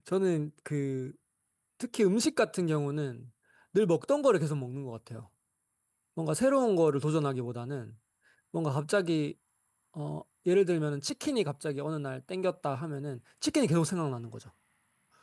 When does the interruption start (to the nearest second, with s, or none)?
none